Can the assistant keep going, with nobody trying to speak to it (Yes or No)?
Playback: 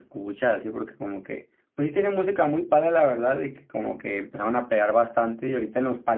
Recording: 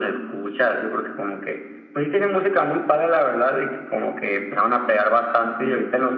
Yes